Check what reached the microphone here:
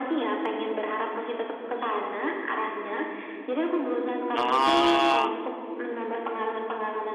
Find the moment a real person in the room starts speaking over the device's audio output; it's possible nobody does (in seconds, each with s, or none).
4.3 s